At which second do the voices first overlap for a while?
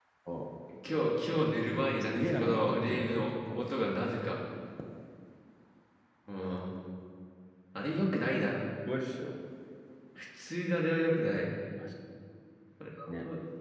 2.1 s

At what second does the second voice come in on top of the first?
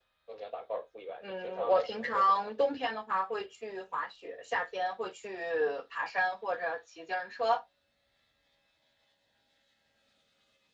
1.2 s

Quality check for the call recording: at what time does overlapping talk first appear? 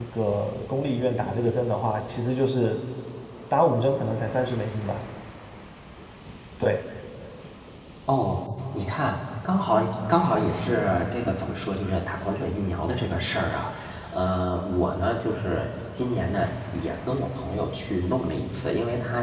none

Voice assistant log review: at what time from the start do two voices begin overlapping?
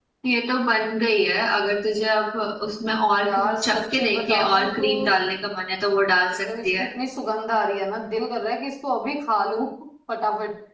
3.2 s

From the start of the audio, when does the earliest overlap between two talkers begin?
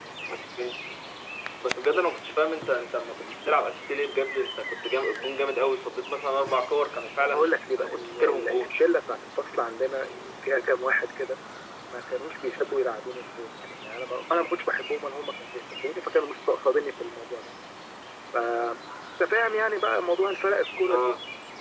7.2 s

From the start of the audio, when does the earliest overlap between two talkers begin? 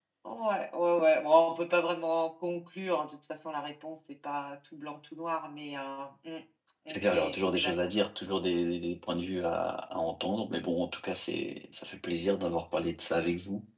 6.9 s

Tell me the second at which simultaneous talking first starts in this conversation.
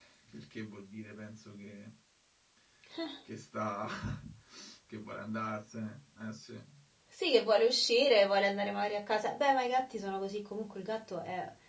none

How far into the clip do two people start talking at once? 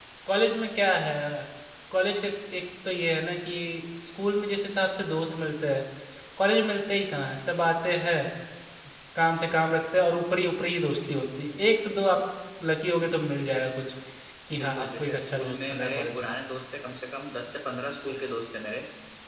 14.6 s

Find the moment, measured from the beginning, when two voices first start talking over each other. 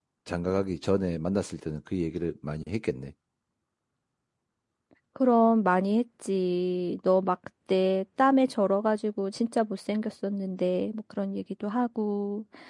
none

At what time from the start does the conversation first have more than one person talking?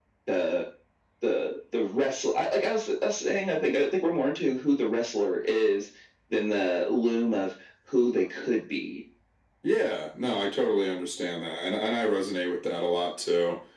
none

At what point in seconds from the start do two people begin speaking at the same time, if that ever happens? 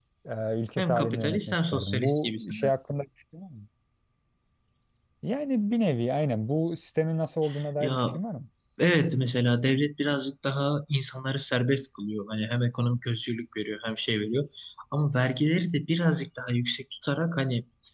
0.8 s

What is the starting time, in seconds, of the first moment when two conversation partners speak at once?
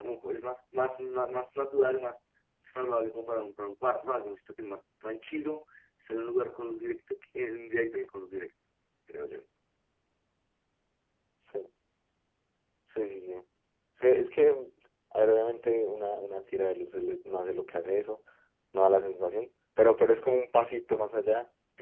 none

